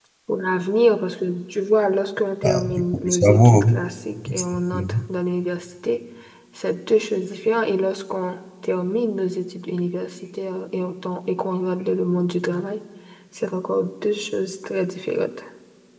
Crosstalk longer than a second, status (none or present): present